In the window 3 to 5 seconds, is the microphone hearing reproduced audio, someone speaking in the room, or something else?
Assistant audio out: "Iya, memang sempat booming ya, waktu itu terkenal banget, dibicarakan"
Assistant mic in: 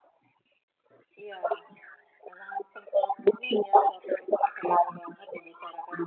echo only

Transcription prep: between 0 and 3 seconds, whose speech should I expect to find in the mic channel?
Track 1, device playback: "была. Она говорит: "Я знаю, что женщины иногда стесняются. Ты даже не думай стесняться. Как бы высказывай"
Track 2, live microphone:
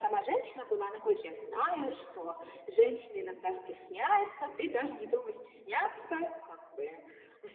echo only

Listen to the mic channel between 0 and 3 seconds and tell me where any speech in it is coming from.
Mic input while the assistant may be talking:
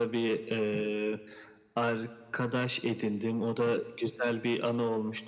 echo only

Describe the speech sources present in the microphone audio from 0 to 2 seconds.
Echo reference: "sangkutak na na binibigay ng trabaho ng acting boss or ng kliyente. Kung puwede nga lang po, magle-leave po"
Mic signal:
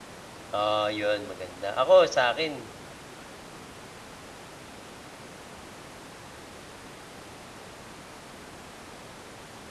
user only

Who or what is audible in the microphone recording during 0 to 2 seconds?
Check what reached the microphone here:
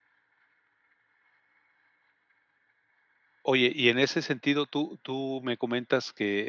neither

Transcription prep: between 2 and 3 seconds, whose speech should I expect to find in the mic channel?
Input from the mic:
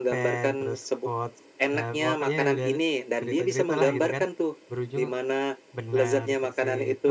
both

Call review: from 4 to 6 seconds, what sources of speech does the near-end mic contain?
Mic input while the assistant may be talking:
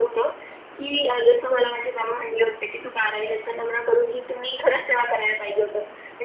echo only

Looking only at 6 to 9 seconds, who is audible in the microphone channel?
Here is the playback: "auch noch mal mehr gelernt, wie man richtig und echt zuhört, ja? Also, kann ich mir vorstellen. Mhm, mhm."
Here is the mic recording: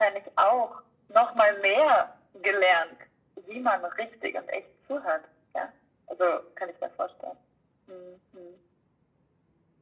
echo only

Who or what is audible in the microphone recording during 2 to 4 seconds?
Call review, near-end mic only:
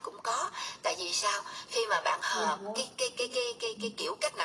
both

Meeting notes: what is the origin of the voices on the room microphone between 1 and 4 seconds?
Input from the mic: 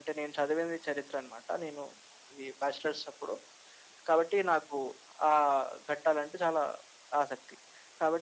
echo only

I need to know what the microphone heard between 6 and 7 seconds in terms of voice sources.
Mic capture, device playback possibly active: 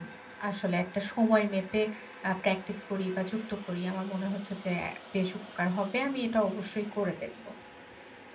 user only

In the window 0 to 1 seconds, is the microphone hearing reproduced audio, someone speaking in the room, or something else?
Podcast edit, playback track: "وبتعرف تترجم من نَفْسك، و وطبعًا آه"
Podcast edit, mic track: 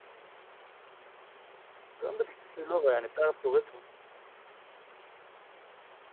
neither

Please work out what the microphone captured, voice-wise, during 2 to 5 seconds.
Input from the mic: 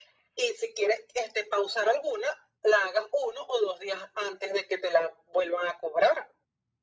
echo only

